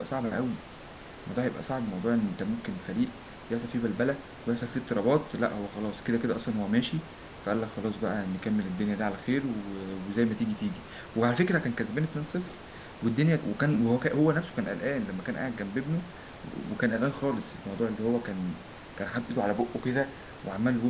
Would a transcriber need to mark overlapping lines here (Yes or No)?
No